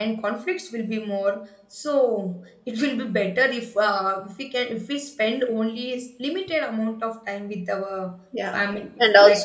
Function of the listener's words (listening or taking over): taking over